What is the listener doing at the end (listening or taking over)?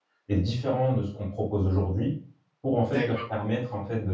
listening